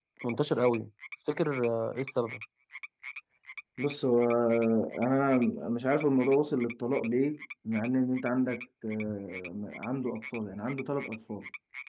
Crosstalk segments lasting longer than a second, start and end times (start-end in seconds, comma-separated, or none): none